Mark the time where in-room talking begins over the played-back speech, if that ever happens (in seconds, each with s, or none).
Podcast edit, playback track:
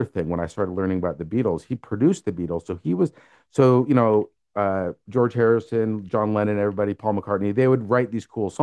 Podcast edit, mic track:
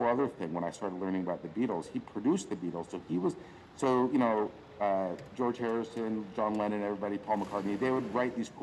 none